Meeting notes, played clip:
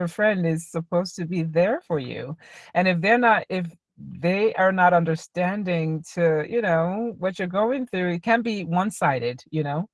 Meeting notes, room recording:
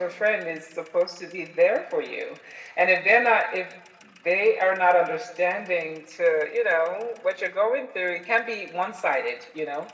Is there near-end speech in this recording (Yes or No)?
No